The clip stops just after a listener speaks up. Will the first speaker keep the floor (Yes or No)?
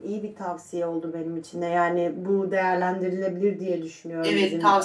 No